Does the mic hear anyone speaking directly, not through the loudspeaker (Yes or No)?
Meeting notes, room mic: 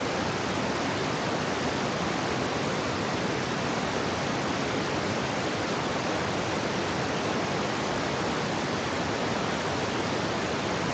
No